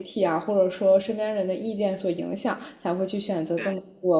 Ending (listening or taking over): listening